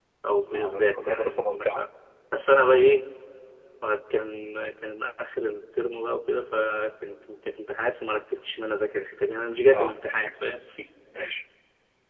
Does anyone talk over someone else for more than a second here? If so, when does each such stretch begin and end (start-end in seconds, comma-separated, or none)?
0.6-1.8